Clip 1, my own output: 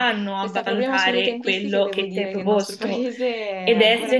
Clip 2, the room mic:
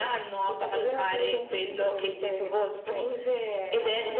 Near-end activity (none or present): none